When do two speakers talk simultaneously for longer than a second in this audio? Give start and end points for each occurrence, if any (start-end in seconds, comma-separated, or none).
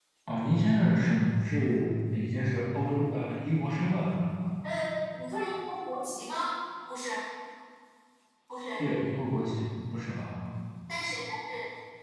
none